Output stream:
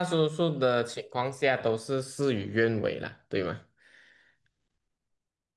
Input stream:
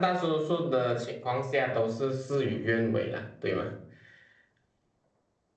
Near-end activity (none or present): none